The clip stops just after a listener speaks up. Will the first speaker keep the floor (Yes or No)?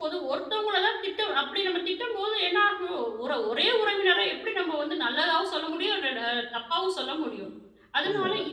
Yes